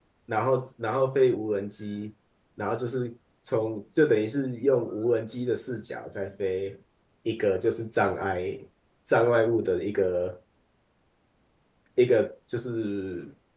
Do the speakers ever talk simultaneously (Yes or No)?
No